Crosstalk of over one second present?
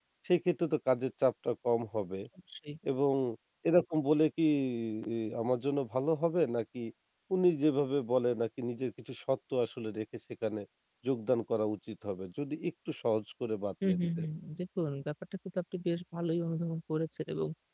No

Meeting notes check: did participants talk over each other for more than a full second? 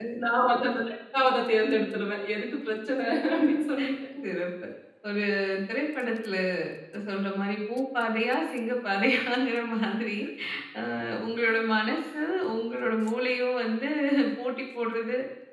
No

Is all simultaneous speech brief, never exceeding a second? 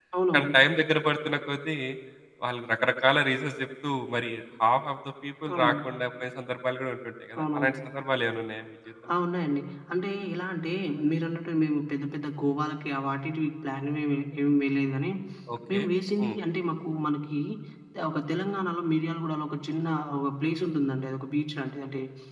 Yes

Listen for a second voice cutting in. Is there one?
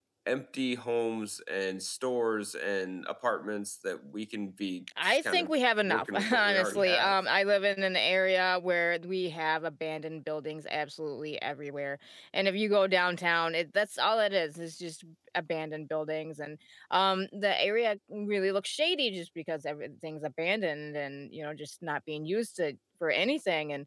Yes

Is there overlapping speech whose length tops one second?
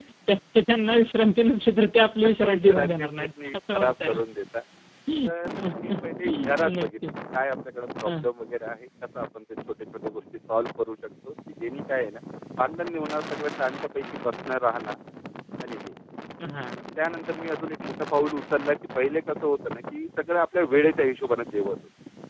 Yes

